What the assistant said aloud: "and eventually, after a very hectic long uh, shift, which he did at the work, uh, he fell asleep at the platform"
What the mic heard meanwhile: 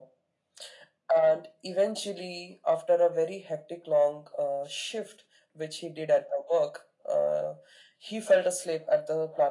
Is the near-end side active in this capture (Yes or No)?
No